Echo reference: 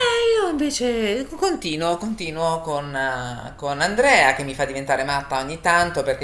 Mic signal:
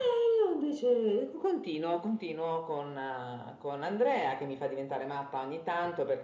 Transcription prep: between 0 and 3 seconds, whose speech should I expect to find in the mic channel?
echo only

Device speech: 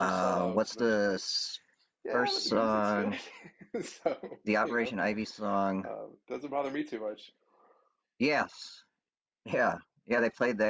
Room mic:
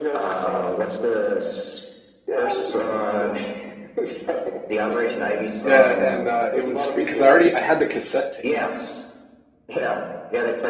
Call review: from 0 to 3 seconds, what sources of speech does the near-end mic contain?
echo only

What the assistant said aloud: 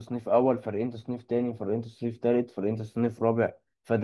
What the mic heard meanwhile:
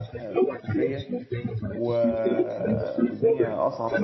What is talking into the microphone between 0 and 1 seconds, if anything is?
both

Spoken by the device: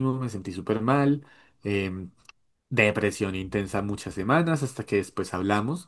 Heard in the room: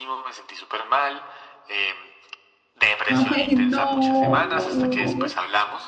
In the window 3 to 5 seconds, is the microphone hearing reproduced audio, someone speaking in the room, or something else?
both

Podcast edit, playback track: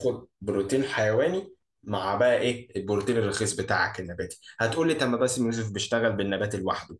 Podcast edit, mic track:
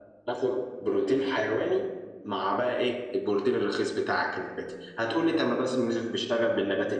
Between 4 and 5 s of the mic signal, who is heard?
echo only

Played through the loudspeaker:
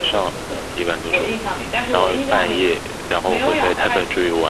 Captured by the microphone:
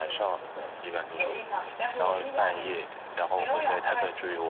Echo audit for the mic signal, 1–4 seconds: echo only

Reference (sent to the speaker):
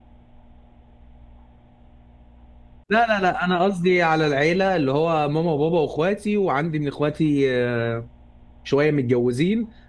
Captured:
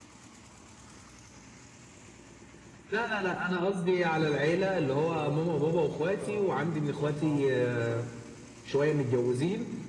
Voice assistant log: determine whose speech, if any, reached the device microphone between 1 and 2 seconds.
neither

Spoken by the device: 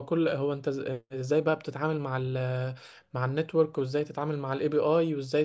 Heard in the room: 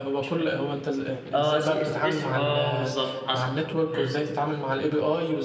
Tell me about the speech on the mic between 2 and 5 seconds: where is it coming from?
both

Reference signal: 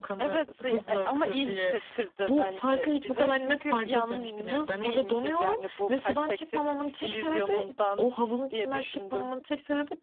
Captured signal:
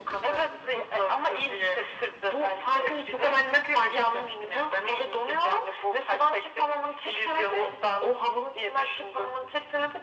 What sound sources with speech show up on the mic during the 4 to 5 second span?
echo only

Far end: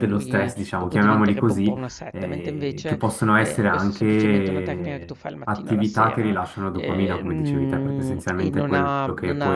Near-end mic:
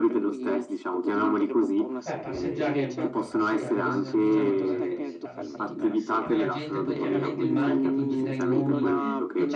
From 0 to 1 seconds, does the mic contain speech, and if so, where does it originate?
echo only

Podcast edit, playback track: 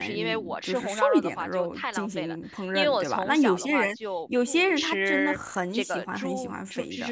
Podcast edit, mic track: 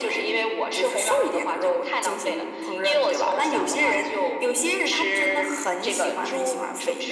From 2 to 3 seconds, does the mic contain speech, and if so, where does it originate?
echo only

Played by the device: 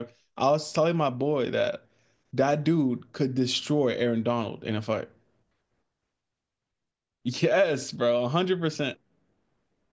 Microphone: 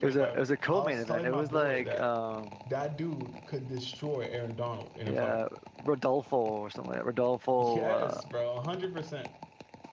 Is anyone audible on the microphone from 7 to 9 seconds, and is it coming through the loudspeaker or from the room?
both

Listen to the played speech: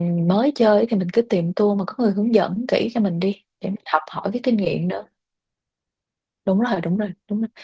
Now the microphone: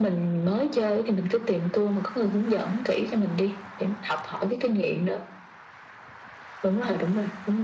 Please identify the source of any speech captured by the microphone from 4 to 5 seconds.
echo only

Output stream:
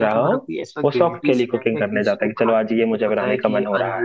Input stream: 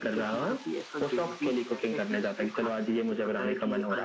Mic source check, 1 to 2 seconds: echo only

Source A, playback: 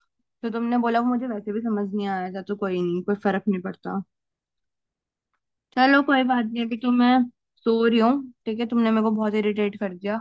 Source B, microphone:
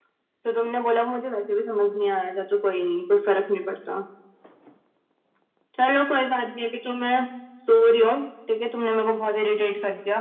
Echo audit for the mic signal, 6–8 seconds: echo only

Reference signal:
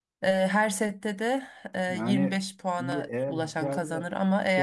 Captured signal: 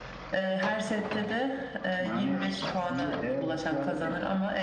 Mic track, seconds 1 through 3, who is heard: echo only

